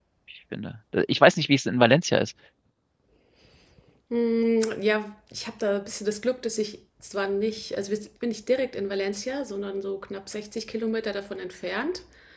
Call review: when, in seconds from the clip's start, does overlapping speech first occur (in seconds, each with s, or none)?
none